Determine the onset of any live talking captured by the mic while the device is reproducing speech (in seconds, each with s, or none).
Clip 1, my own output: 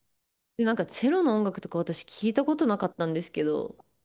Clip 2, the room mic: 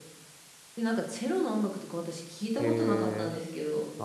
2.6 s